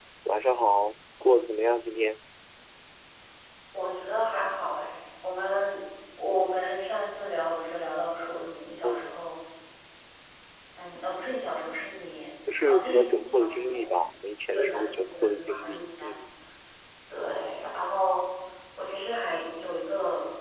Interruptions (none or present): present